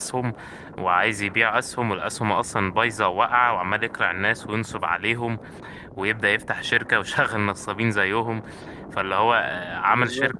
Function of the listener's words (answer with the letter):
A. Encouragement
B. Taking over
A